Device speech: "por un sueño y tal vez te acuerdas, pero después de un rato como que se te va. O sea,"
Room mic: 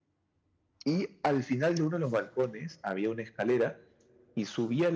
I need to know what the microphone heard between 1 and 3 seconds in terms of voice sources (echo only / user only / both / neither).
user only